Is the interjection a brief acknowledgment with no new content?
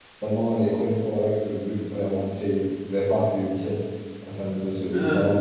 Yes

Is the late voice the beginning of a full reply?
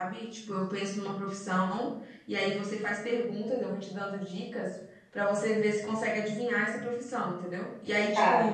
No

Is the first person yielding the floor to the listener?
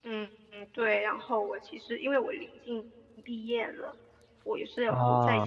No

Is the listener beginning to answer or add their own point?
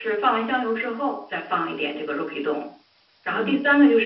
No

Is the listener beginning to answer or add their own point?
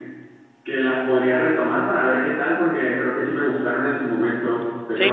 Yes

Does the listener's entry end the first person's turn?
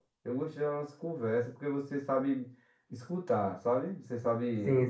Yes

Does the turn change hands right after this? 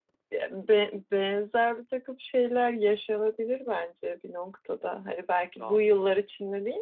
No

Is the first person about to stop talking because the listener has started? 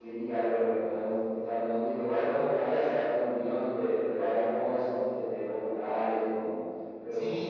Yes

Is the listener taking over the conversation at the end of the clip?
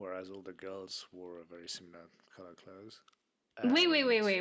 Yes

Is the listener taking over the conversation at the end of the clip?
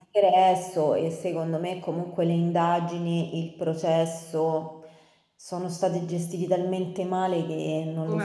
Yes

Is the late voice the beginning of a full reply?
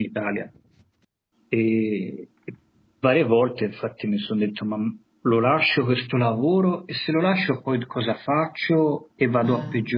No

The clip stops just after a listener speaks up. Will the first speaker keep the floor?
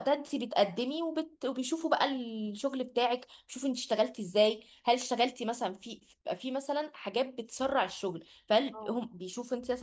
Yes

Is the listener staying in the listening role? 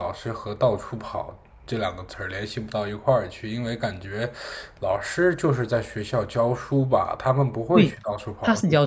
No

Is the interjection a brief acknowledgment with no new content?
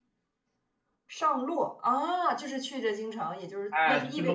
No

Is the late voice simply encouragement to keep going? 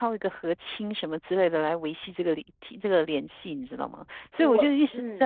Yes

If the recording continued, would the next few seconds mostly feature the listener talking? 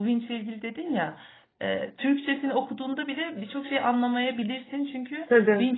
No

